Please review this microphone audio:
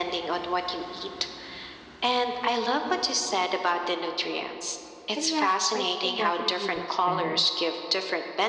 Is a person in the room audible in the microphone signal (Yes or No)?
Yes